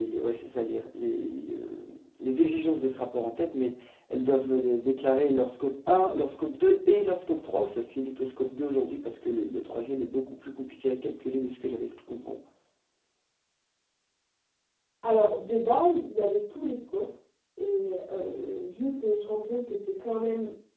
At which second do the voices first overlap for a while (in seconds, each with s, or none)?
none